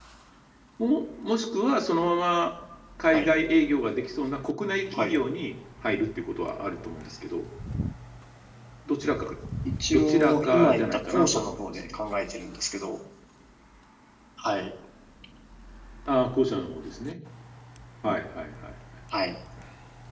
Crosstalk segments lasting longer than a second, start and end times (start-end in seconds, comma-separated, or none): 9.9-12.0